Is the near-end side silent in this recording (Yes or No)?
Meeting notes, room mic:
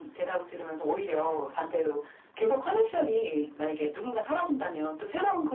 Yes